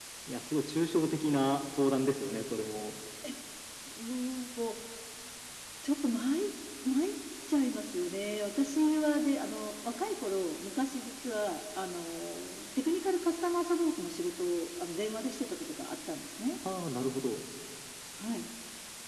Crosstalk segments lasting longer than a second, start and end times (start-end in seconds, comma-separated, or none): none